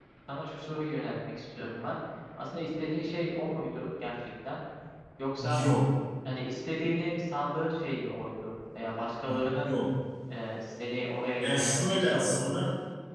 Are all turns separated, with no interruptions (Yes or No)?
No